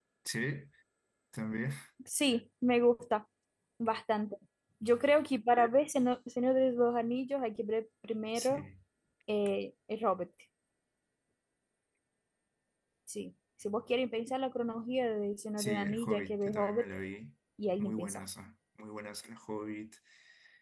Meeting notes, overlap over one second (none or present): present